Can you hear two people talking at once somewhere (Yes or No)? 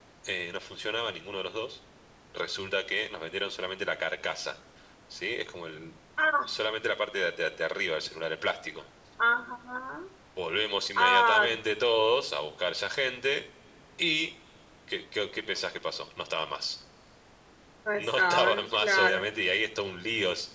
Yes